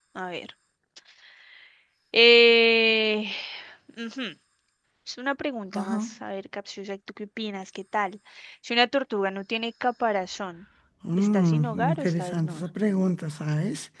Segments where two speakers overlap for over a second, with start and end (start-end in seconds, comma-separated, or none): 11.2-12.6